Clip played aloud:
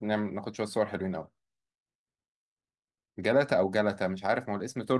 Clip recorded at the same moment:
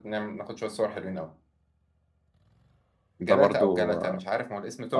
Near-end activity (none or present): present